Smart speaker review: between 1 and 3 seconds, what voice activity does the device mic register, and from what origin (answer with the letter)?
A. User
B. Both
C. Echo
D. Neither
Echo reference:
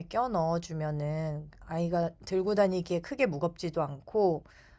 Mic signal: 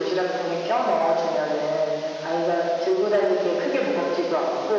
C